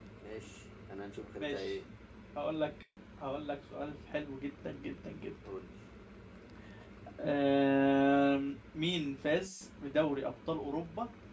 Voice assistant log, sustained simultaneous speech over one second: none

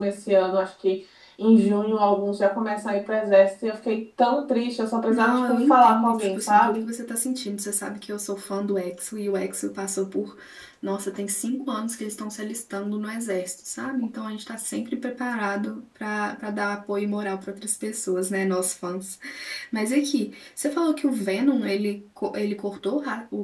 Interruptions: present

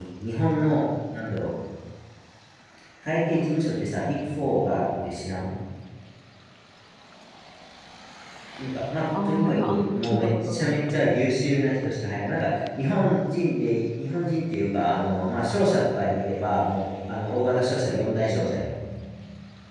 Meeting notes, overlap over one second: present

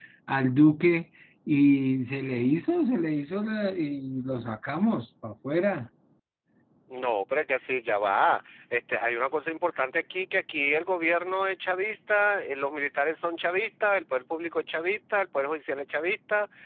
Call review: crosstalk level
none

